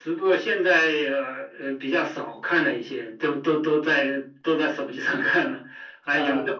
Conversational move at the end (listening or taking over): listening